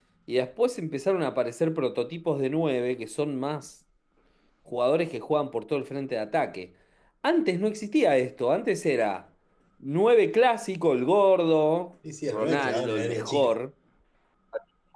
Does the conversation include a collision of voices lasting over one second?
Yes, from 12.0 s

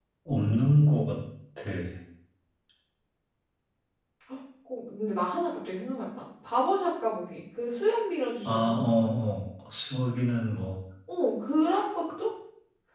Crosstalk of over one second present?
No

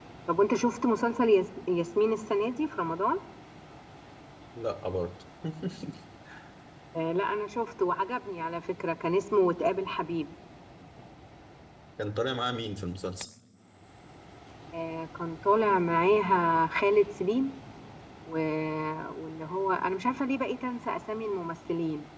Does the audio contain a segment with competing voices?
No

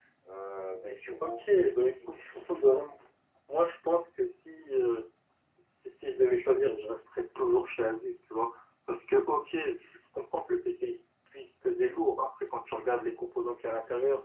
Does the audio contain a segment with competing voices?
Yes, from 1.2 s

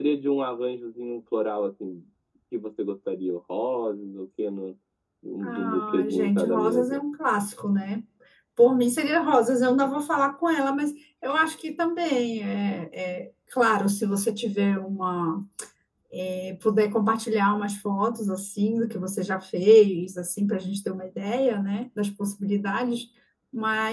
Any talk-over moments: Yes, from 5.4 s

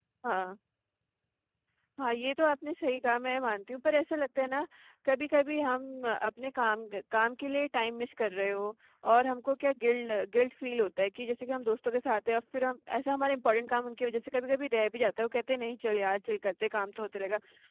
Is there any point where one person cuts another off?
No

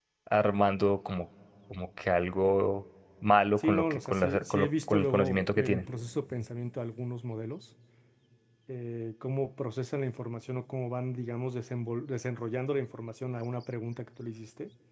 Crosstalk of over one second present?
Yes, from 3.6 s

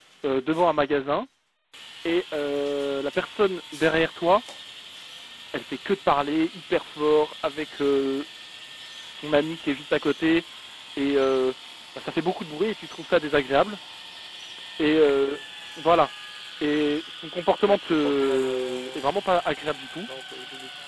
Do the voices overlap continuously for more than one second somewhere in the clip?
Yes, from 17.6 s

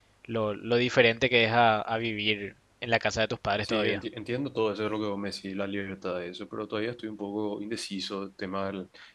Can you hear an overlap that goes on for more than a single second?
No

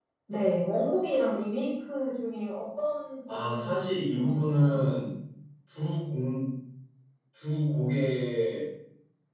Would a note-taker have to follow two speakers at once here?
Yes, from 3.3 s

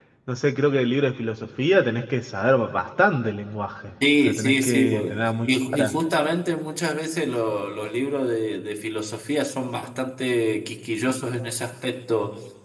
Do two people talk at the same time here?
Yes, from 4.3 s

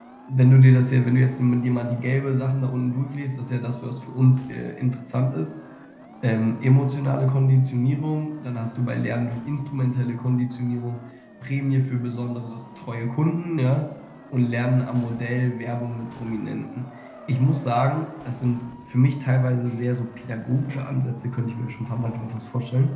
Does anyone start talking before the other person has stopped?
No

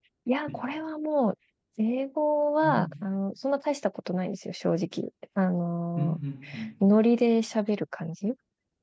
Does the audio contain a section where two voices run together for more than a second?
No

